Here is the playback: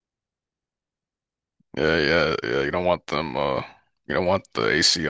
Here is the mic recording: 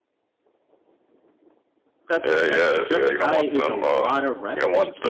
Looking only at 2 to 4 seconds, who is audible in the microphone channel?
both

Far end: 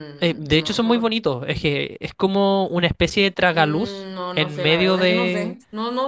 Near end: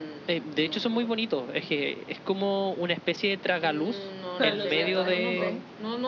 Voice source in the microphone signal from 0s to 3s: echo only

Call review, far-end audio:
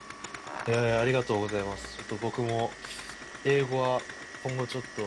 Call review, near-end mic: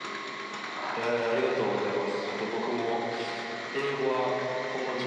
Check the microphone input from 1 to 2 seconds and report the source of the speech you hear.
echo only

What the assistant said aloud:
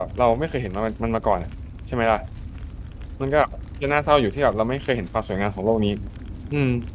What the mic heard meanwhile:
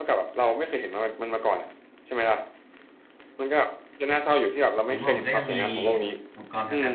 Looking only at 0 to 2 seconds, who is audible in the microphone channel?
echo only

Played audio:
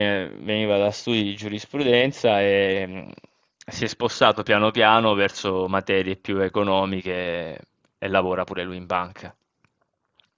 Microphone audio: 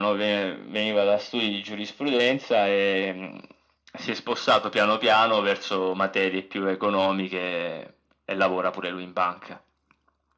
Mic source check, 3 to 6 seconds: echo only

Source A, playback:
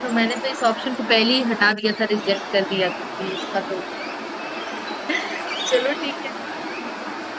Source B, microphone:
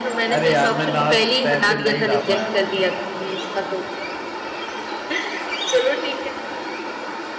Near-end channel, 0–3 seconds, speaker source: both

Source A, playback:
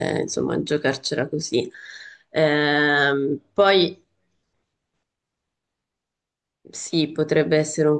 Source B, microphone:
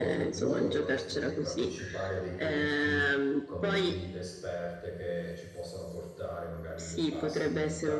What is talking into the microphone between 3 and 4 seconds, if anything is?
both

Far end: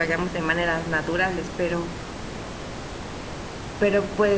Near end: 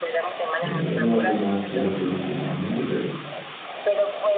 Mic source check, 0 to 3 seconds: both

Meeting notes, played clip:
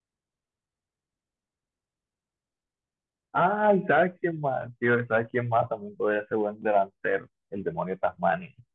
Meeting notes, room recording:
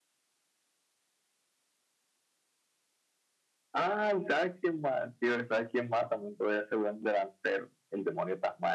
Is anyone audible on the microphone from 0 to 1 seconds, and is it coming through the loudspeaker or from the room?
neither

